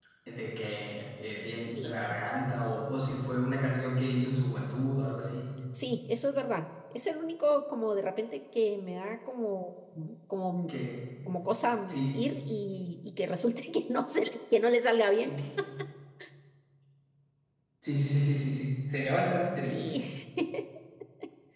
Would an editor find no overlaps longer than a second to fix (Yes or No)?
Yes